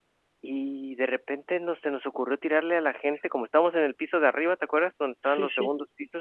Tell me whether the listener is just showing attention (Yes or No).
Yes